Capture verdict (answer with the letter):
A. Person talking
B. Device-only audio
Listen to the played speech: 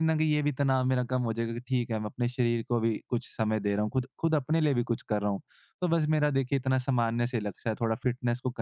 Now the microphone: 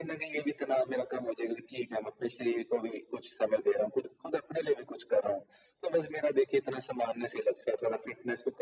B